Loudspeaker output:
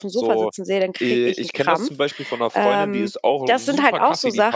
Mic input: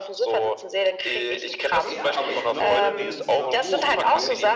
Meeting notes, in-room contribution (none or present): present